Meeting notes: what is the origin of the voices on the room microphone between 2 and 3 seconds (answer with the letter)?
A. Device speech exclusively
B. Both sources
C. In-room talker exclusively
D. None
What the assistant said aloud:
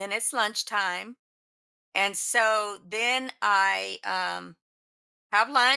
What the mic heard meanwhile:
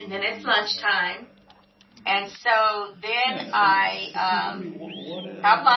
A